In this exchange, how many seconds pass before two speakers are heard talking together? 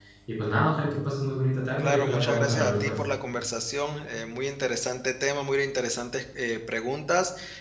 1.8 s

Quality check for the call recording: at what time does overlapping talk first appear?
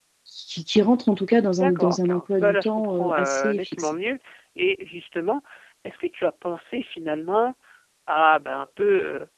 1.6 s

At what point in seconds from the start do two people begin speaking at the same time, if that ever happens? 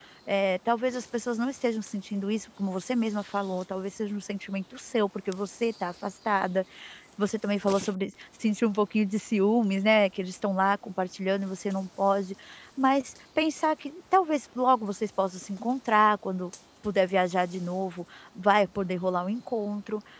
none

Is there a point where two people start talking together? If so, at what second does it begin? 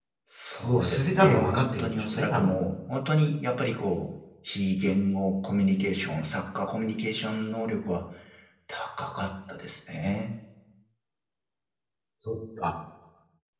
0.6 s

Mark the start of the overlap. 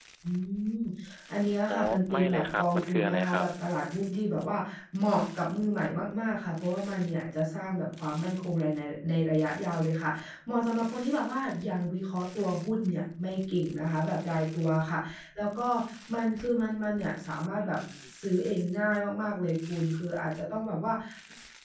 1.7 s

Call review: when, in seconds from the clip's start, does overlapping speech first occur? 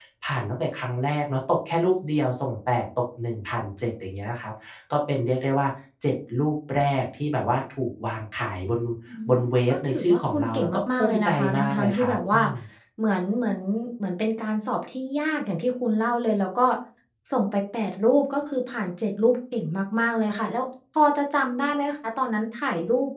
9.4 s

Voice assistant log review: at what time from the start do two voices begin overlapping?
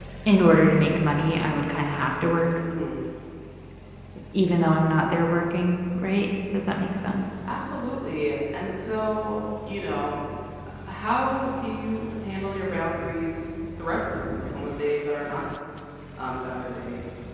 none

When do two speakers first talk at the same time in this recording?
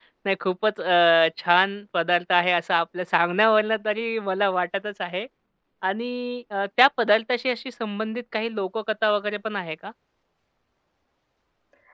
none

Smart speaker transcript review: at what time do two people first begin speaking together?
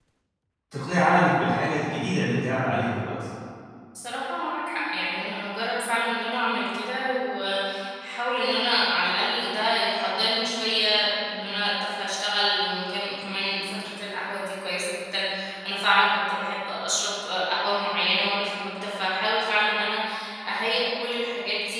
none

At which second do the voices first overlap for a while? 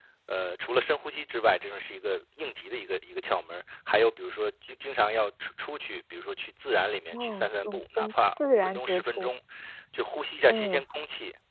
7.1 s

